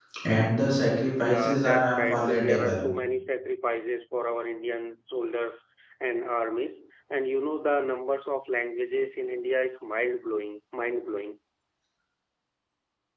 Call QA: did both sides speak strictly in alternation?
No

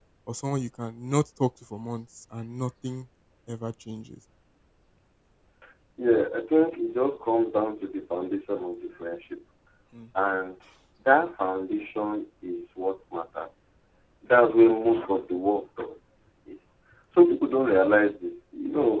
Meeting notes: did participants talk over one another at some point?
No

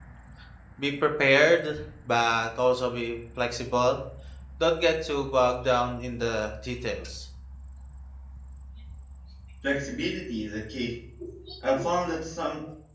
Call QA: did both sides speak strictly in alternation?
Yes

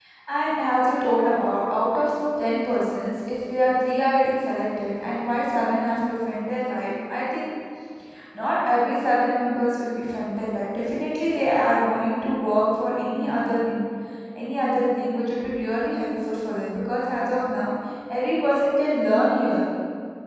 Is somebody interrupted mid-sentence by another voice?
No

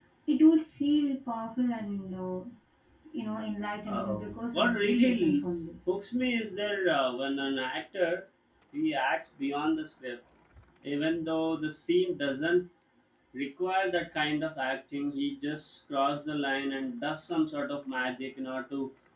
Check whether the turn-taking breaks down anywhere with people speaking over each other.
Yes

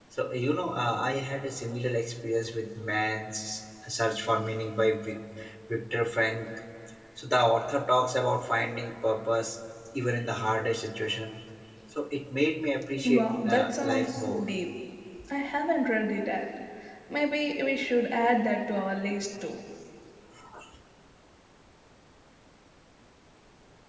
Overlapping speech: Yes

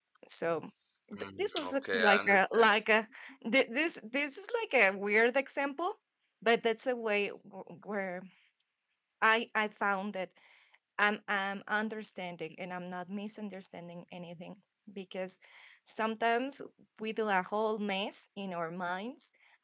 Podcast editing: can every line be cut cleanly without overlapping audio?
No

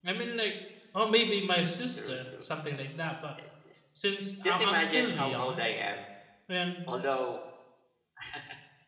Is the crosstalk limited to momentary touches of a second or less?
No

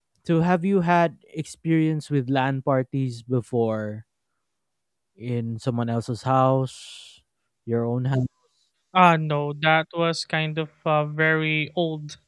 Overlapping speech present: No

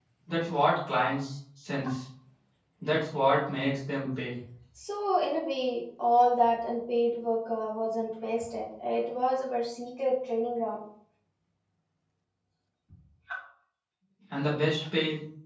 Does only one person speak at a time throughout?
Yes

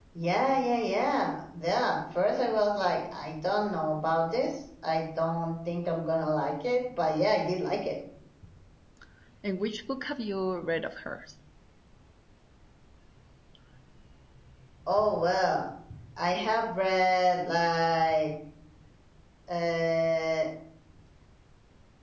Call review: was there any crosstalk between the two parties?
No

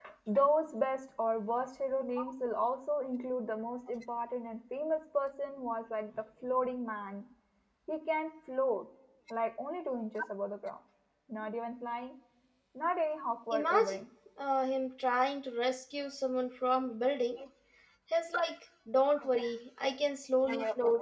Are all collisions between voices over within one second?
Yes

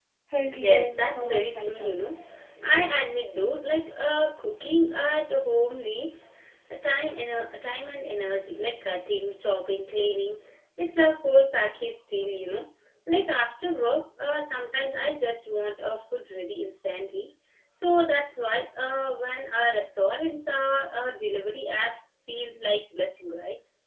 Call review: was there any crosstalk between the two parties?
Yes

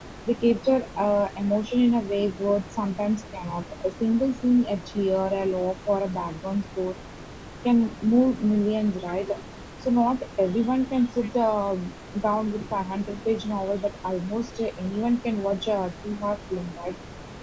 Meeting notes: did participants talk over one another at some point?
No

